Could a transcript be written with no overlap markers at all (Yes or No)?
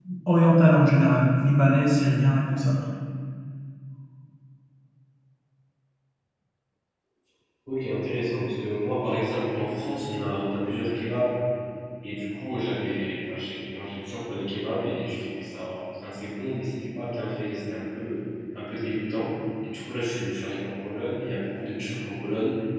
Yes